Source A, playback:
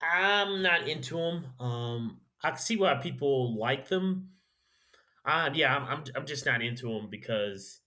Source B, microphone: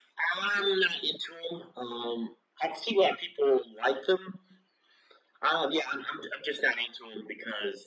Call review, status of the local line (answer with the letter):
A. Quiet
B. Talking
A